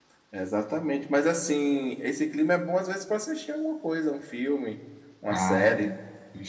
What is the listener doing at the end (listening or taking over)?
taking over